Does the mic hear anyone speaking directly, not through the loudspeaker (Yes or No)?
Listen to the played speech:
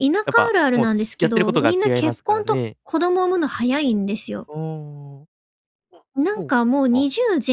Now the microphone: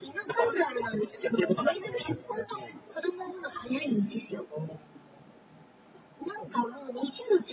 No